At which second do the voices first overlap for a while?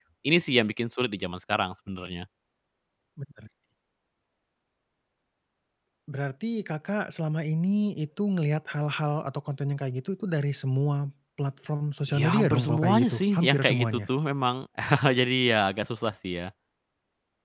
12.1 s

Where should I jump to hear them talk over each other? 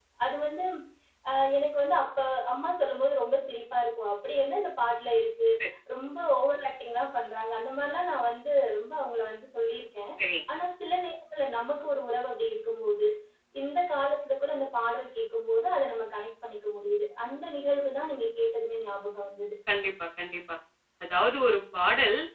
none

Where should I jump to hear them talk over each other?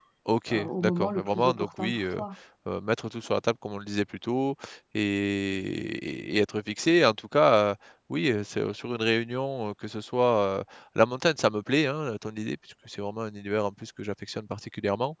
0.5 s

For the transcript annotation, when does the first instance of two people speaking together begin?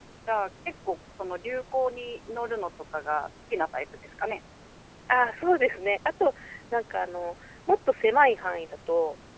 none

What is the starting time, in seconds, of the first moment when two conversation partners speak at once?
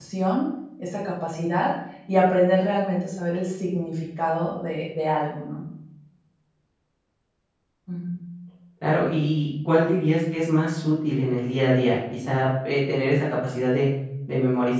none

